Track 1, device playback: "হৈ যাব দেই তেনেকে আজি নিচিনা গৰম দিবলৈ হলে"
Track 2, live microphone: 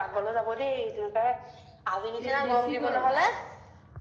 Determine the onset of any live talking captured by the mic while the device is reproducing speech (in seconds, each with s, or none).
2.2 s